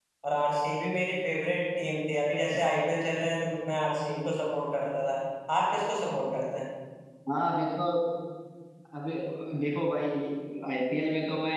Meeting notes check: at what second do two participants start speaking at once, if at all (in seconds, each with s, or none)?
none